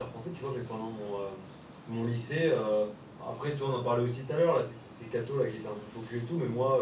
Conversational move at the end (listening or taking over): listening